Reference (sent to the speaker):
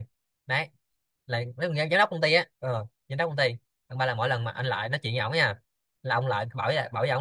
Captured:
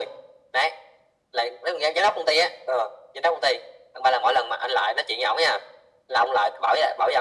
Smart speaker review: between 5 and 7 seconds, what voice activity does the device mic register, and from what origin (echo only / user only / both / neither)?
echo only